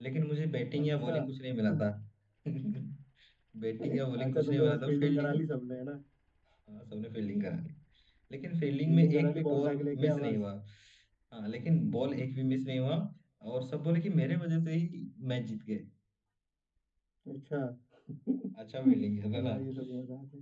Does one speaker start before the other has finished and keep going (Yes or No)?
Yes